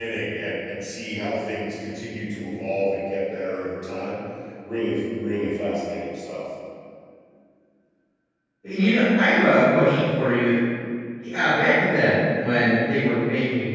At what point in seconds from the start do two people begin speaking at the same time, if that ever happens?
none

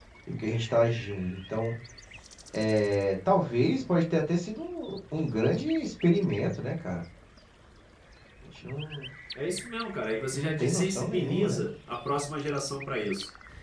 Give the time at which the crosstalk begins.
10.3 s

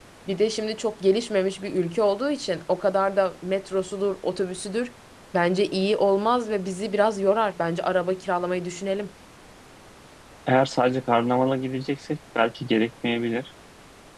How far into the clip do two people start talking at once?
none

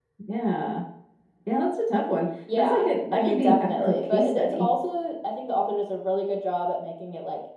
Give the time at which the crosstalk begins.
2.5 s

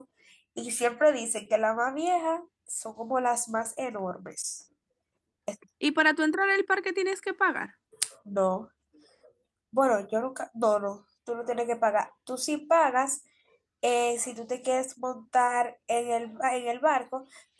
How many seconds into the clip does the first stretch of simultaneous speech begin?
none

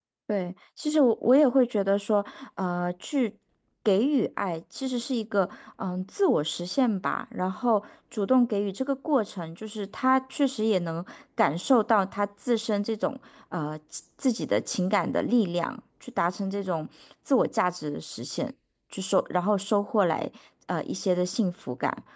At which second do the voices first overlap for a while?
none

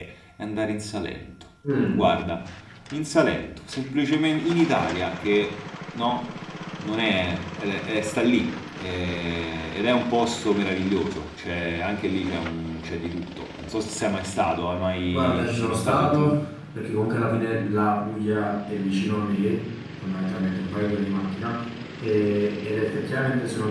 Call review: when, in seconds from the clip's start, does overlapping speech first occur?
15.1 s

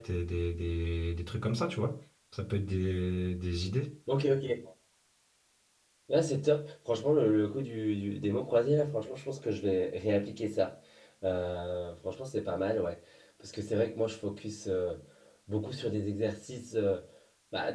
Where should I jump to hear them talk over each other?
none

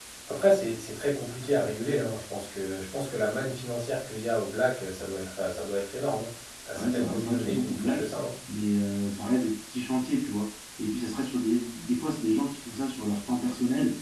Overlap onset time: 6.8 s

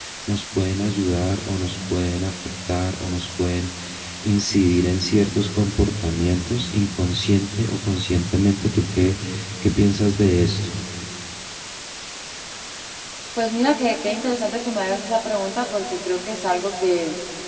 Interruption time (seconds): none

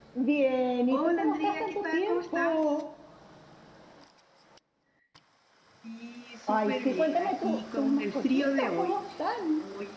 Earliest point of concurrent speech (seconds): 0.9 s

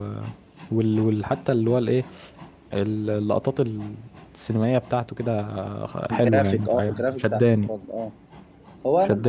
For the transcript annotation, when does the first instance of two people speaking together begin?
6.1 s

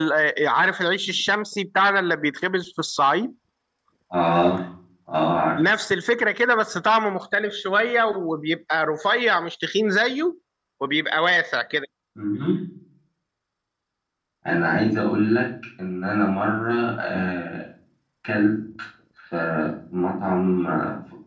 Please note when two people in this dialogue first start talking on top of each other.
none

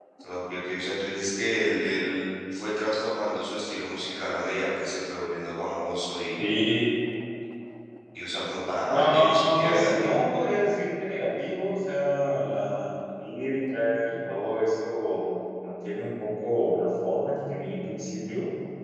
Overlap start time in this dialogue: 8.9 s

